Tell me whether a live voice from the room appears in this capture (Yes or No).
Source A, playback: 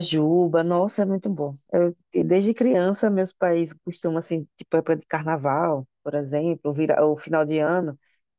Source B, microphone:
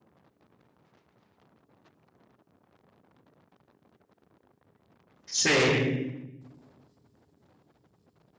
Yes